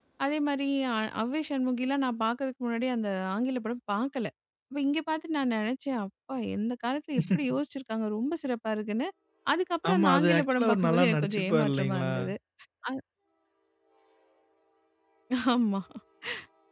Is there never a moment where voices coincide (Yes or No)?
No